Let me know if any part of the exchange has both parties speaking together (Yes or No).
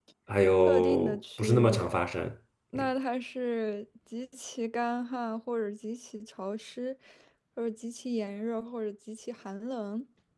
Yes